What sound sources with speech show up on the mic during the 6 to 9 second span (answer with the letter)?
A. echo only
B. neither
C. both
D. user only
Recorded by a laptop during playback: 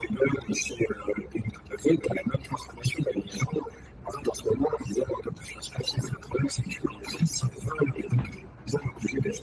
A